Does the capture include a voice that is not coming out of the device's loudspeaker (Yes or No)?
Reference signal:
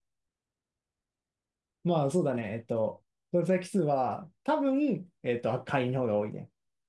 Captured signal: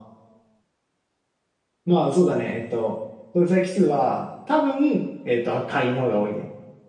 No